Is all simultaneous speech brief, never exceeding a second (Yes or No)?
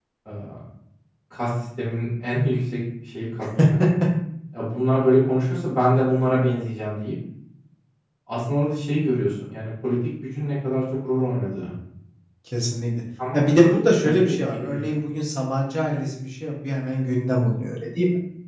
No